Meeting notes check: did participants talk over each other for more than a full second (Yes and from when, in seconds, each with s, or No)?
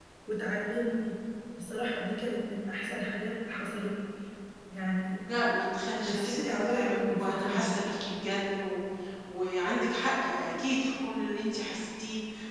Yes, from 6.0 s